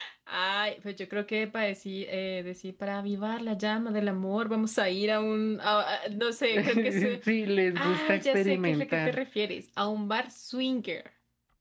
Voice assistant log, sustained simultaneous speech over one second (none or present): present